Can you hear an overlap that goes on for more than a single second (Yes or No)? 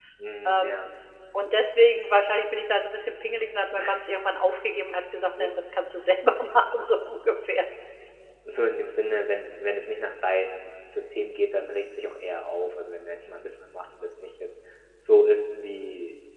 No